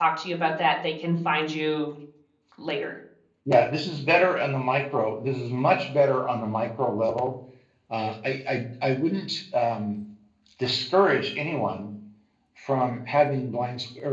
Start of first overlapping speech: none

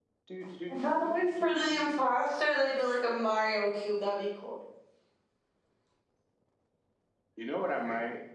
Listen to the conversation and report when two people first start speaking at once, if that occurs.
0.7 s

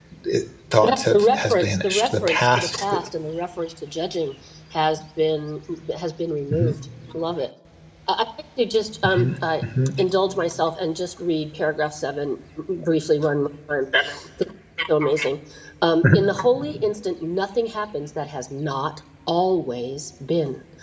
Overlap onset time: 0.8 s

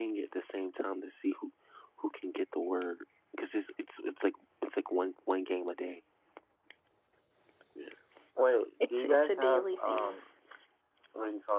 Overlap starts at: 8.8 s

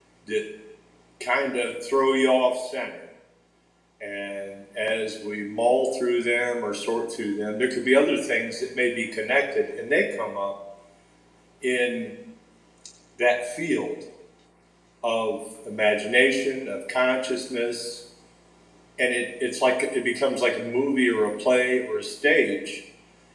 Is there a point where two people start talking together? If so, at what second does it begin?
none

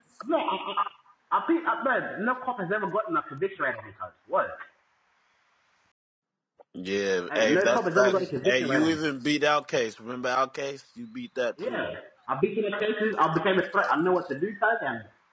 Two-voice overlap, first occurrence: 7.3 s

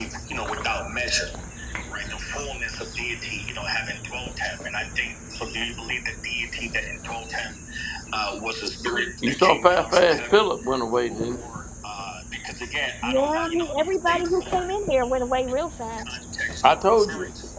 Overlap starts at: 13.0 s

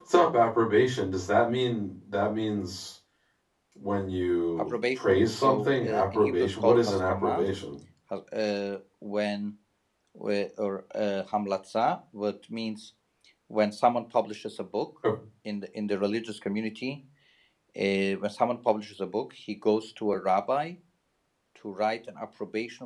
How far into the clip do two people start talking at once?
4.6 s

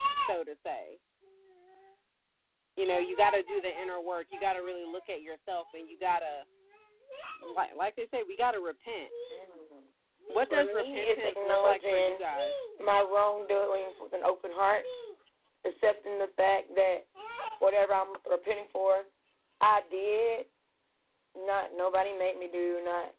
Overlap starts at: 10.5 s

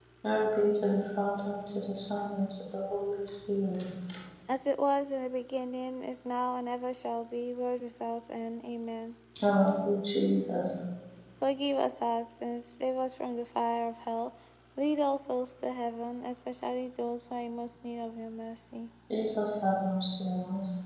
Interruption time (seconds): none

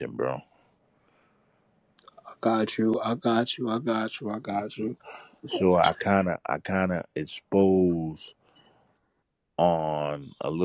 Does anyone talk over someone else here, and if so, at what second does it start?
none

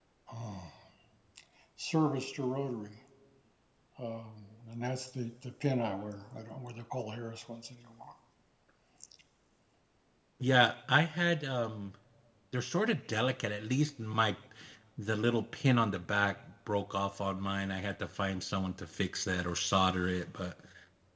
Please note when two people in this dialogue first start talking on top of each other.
none

